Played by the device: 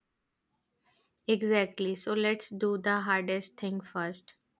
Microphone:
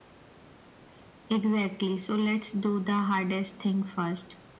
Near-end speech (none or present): none